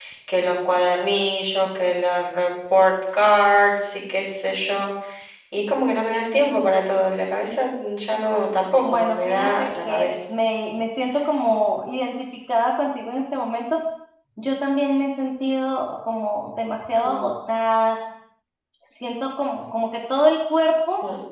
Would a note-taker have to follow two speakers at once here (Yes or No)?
Yes